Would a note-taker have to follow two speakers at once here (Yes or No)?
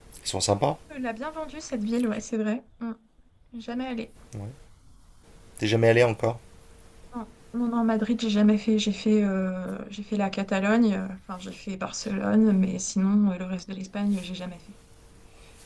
No